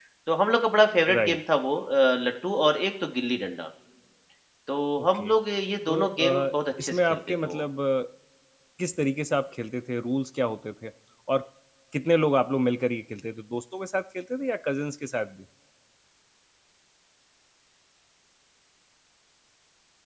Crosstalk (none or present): present